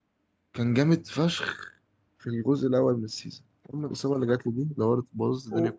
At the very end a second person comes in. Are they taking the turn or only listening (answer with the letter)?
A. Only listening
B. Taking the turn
B